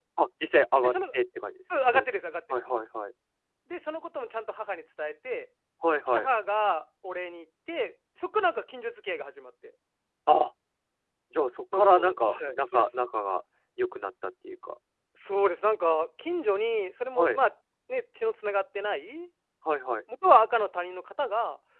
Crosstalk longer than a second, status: present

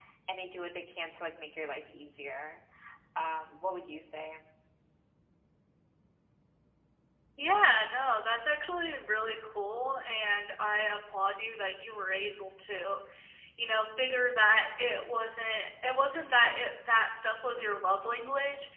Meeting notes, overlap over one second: none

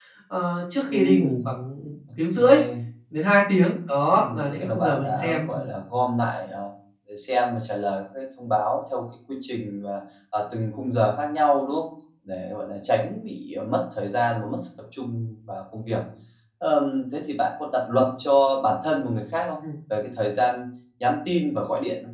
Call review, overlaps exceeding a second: present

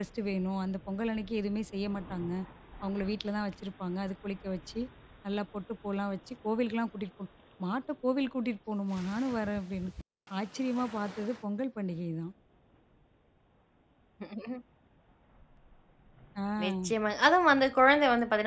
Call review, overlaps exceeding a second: none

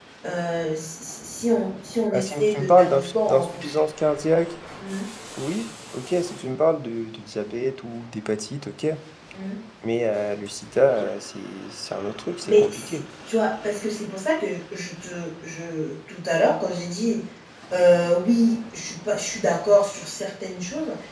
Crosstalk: present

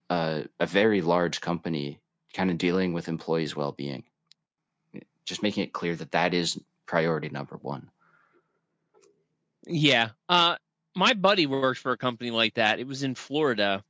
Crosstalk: none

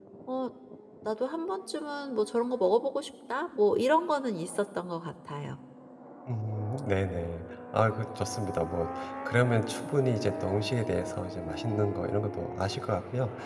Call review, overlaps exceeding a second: none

